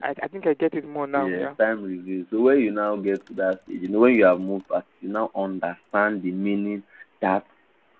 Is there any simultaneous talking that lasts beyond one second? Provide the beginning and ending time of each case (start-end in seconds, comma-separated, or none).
none